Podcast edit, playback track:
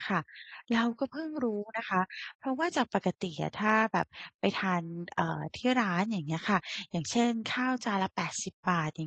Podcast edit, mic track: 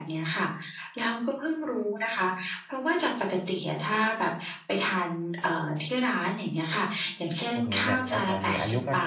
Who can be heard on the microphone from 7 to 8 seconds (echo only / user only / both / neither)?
both